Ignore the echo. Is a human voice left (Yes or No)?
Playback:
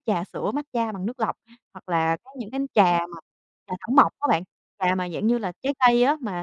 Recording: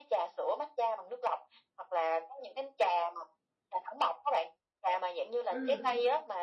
Yes